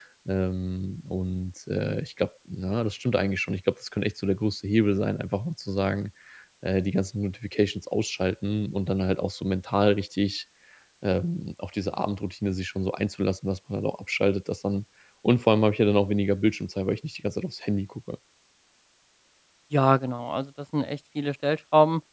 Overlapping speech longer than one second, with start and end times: none

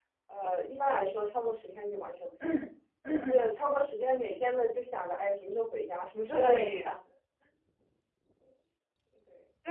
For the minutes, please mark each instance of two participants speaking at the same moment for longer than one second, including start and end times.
none

